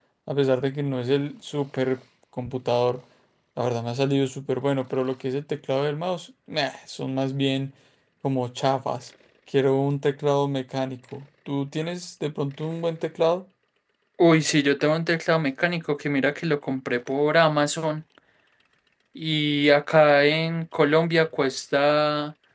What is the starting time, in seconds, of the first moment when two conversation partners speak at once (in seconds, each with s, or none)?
none